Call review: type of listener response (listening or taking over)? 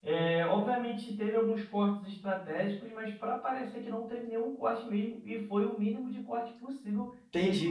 taking over